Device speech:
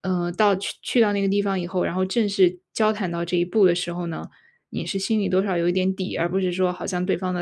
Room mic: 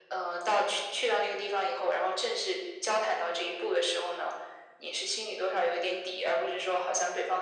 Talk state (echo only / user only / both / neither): echo only